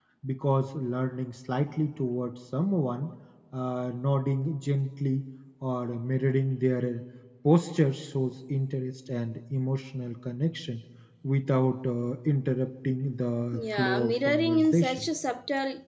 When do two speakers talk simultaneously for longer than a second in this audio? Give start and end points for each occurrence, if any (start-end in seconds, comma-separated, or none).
13.5-15.1